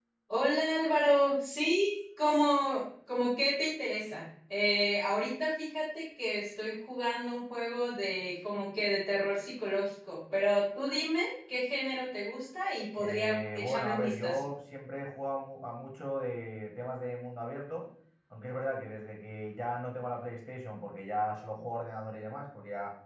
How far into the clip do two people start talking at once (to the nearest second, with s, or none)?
13 s